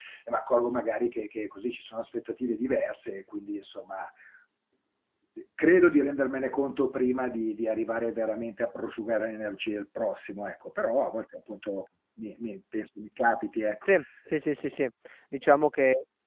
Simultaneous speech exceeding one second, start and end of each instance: none

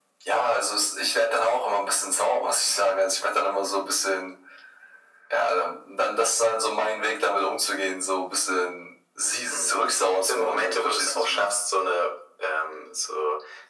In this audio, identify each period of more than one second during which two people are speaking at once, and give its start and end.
9.5-11.5

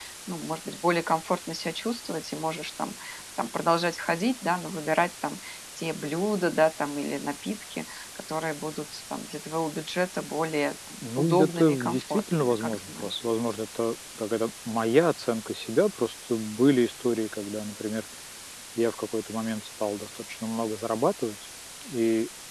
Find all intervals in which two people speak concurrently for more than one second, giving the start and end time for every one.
11.2-13.1

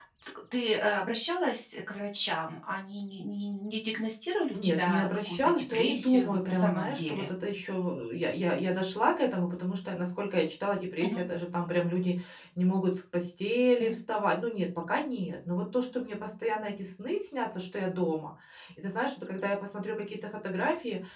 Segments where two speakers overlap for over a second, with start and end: 4.5-7.3

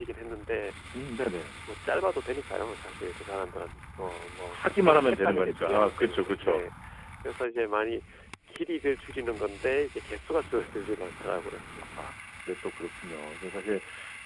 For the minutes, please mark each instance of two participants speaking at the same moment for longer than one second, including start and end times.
4.5-6.6

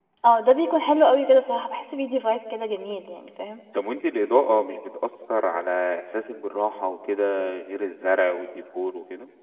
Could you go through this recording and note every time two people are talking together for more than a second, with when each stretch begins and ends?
none

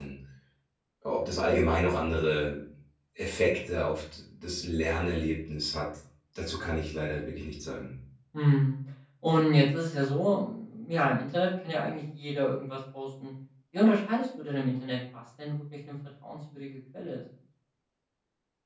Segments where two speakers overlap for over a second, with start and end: none

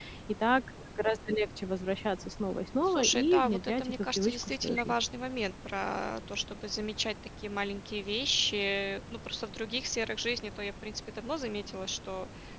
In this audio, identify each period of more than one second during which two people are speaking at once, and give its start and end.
2.8-4.9

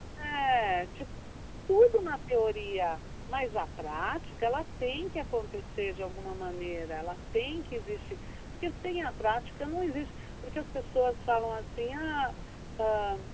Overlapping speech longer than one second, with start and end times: none

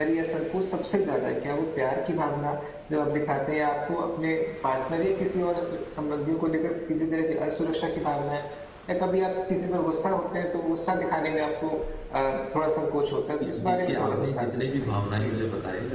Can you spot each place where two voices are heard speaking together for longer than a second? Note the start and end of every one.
13.4-15.3

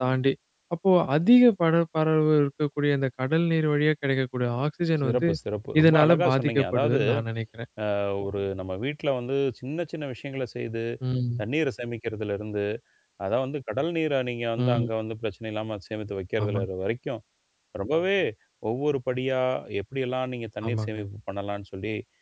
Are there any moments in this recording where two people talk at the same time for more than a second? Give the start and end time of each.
5.8-7.0

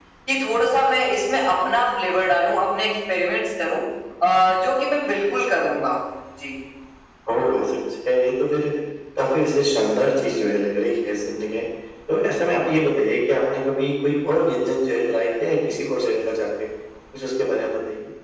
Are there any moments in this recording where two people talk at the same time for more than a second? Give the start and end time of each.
none

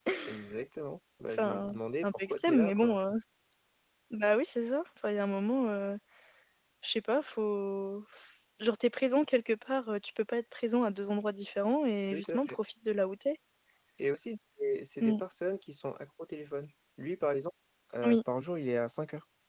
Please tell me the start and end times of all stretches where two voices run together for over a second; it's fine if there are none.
1.3-3.0

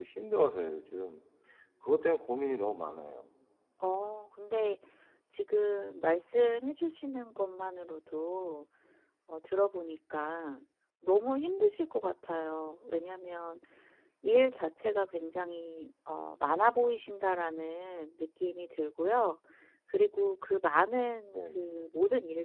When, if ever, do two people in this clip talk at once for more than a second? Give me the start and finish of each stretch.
none

